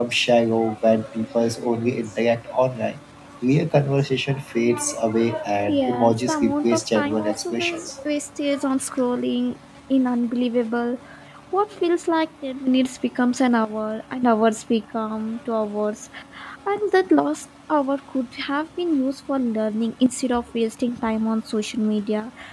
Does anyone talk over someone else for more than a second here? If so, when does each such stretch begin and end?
5.8-7.9

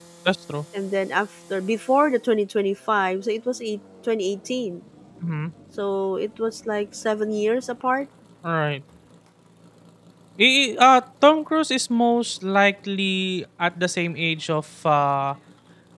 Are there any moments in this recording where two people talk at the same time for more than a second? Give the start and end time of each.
none

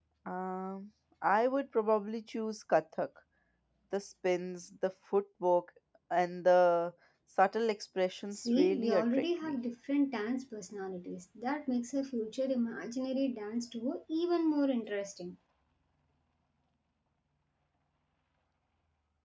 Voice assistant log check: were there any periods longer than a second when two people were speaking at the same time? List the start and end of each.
8.3-9.6

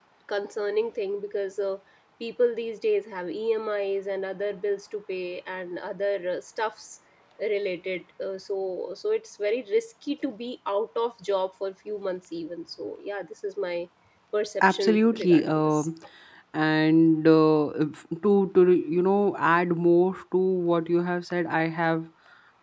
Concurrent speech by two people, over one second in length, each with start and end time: 14.6-15.9

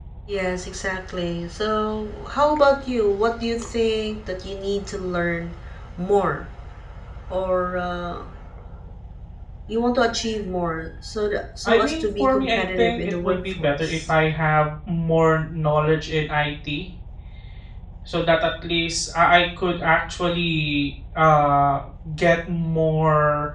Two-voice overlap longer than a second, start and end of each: 11.7-14.1

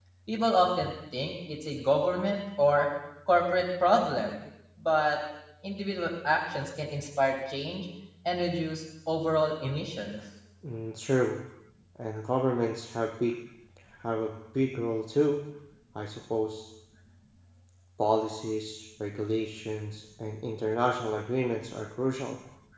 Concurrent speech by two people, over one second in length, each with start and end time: none

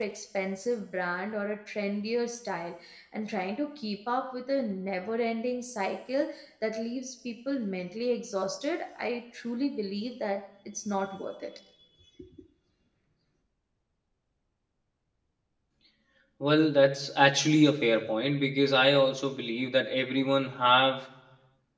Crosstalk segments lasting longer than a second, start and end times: none

